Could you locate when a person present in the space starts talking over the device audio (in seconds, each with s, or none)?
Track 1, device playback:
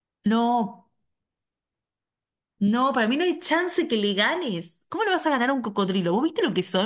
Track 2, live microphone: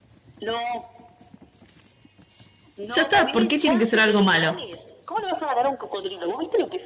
2.9 s